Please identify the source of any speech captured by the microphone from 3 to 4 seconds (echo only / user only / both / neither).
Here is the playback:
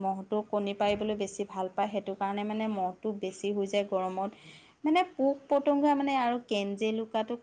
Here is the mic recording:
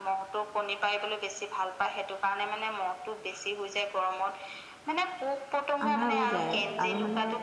echo only